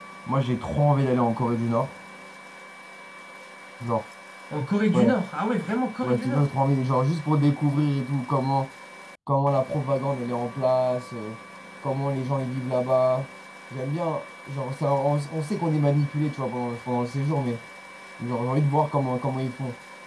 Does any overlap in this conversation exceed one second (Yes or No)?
No